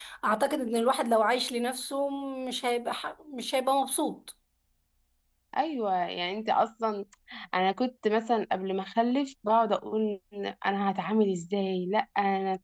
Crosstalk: none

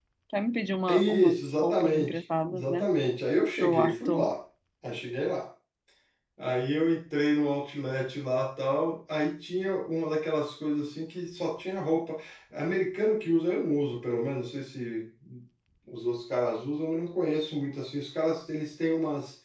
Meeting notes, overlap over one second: present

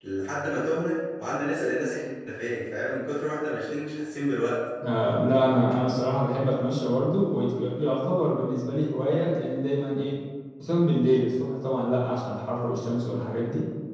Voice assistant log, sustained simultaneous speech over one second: none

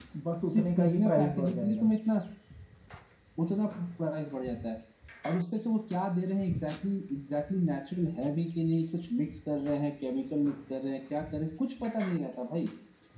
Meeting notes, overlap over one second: present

